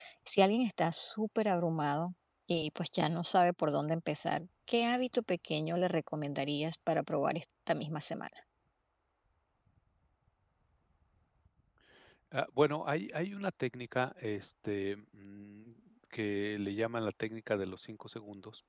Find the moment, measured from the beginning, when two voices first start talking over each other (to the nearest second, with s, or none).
none